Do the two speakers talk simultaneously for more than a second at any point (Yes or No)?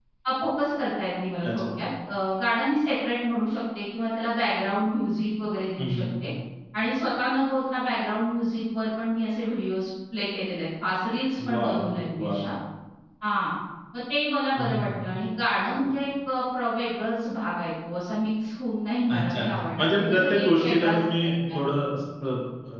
Yes